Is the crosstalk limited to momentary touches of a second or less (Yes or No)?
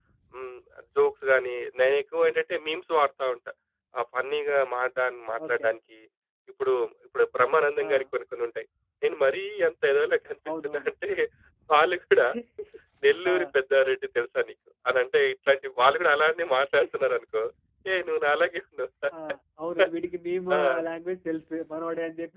Yes